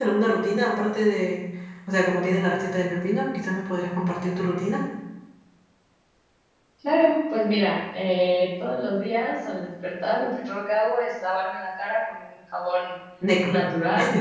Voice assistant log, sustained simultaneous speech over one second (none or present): none